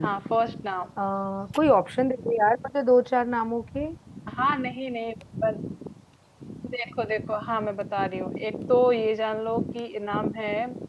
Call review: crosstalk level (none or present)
none